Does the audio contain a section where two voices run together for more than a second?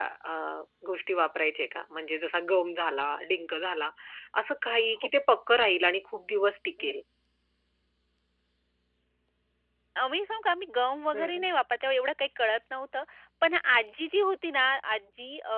No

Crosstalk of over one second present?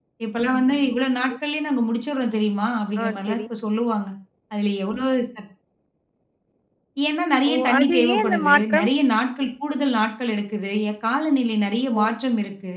Yes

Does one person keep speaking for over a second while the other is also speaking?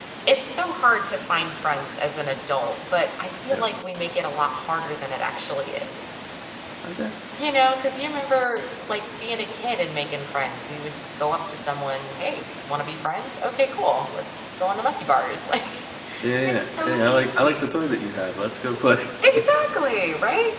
Yes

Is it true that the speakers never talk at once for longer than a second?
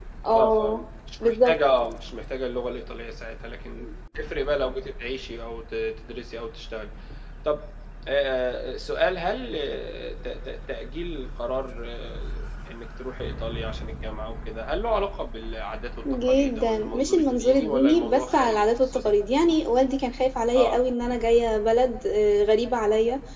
No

